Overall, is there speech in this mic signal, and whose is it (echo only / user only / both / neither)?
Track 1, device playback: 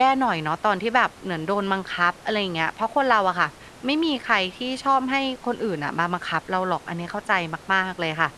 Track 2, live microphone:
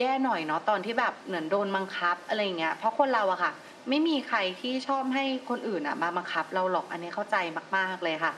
echo only